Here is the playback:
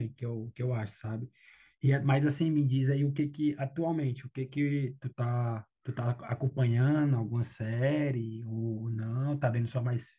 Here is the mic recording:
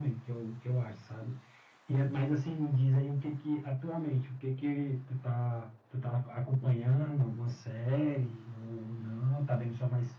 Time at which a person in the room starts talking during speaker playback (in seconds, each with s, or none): none